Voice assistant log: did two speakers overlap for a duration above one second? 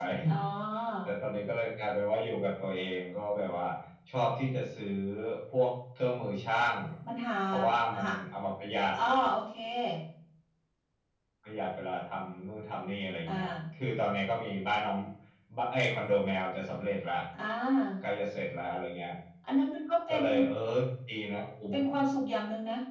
No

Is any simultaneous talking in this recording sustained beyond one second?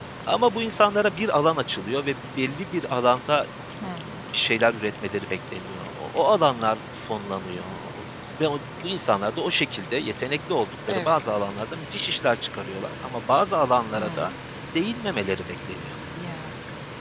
No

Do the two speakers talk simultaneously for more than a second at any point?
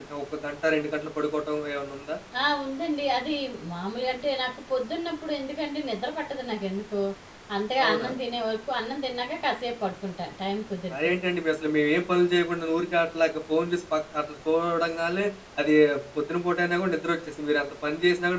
No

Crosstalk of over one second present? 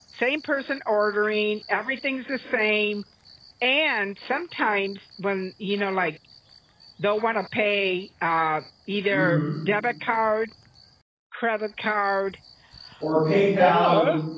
No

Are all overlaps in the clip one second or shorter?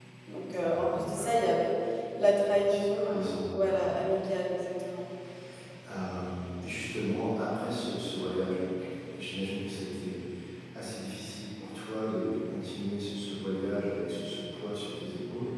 No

